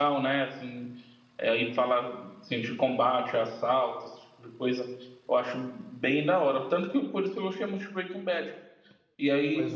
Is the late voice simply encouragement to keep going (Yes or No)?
No